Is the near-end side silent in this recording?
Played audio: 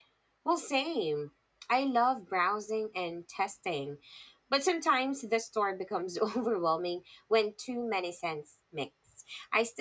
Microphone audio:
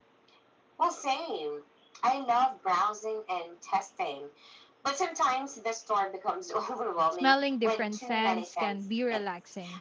No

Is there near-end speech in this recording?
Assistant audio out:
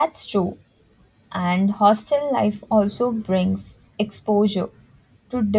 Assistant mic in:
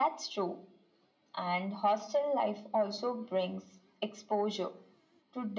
No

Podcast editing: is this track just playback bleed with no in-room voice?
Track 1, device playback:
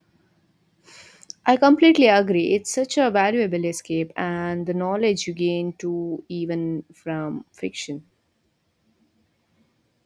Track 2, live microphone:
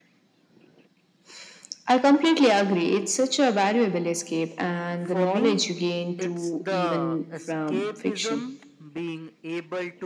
No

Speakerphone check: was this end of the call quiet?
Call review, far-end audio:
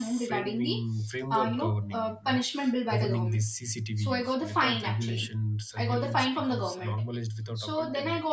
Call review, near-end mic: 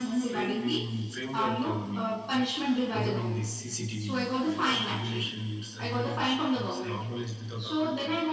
Yes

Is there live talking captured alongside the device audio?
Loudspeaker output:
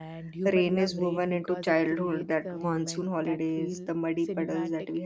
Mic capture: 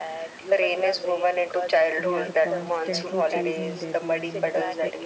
Yes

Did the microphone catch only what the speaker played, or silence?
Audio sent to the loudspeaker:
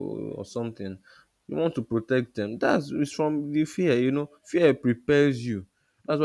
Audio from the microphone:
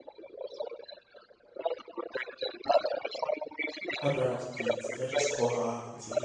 No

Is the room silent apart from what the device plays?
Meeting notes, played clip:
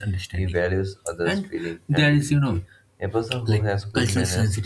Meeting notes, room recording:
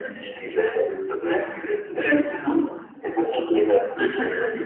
Yes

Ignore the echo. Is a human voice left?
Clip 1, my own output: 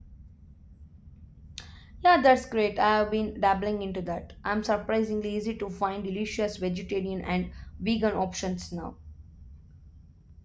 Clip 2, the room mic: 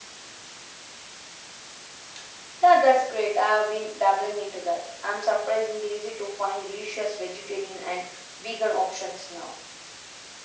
No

